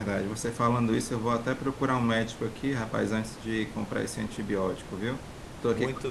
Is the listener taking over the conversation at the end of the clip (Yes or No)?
No